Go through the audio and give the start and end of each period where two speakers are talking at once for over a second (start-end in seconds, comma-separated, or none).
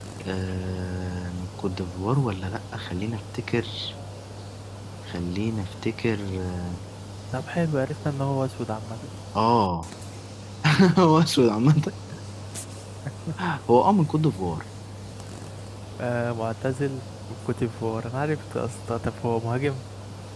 none